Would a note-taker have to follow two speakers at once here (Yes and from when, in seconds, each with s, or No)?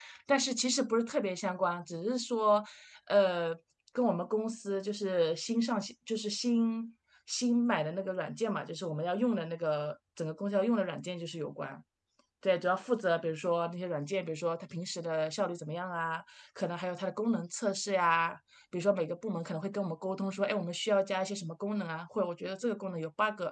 No